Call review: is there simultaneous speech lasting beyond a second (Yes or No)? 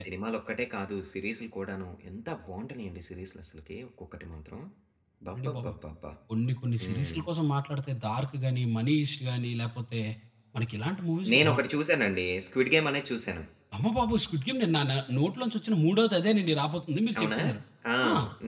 No